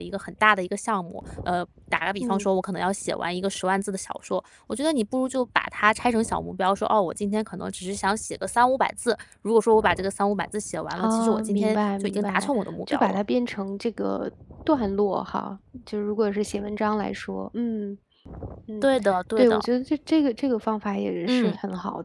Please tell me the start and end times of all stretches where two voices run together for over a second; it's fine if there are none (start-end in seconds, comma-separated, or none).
11.0-12.5